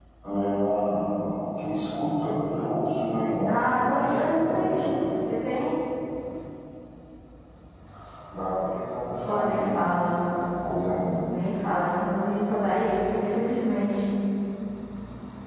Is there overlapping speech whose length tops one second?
Yes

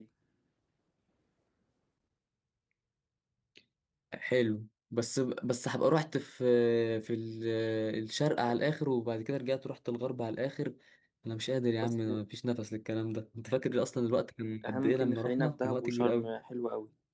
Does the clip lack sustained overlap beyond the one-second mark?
No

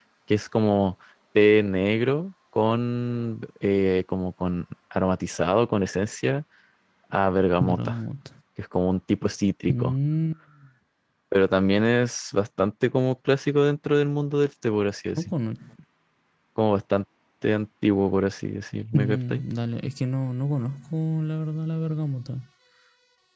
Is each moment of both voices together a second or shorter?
Yes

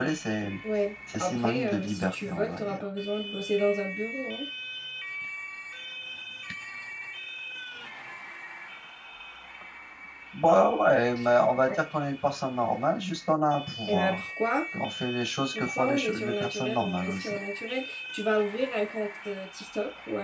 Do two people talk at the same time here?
Yes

